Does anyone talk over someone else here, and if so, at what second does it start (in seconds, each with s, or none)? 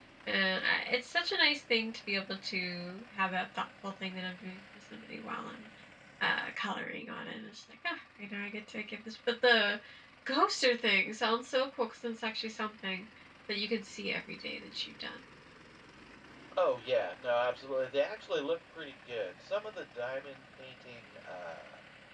none